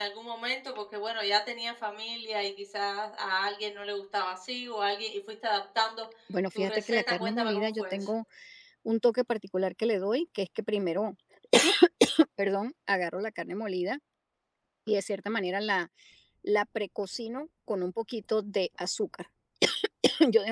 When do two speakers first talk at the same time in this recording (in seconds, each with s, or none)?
6.6 s